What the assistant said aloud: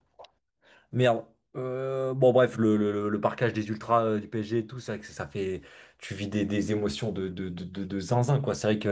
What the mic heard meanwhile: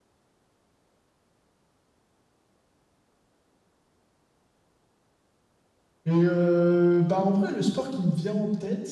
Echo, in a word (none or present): none